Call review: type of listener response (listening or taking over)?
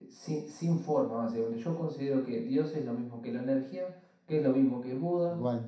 listening